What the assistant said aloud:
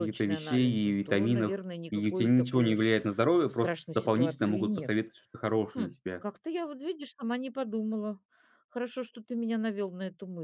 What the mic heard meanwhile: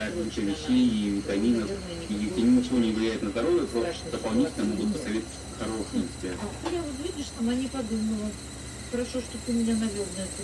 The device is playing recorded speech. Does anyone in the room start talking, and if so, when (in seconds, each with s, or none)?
none